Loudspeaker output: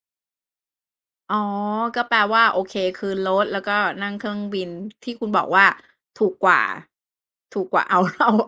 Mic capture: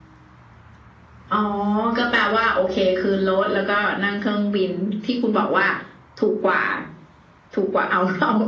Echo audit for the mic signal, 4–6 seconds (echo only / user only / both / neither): echo only